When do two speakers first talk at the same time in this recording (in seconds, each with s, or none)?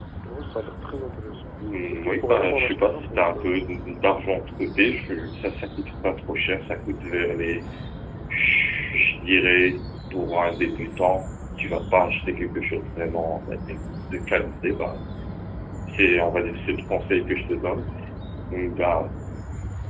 1.9 s